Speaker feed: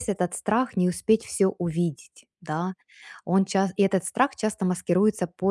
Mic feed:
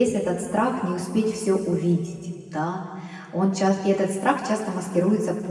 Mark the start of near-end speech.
none

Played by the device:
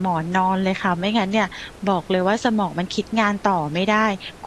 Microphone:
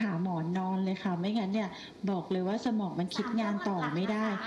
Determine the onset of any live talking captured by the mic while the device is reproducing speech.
3.1 s

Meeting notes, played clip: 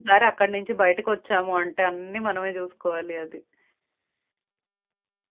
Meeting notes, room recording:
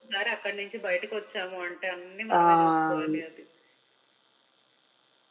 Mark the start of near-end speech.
2.4 s

